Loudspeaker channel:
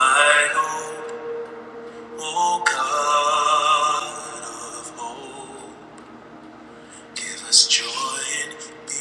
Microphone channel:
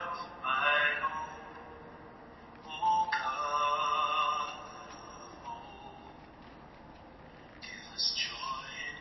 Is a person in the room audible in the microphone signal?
No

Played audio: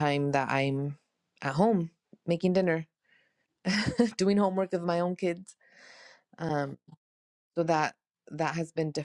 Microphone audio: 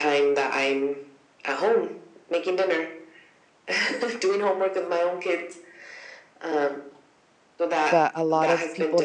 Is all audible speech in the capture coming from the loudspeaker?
No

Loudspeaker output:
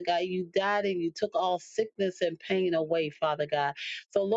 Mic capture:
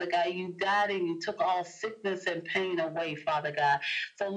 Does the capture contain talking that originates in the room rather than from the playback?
No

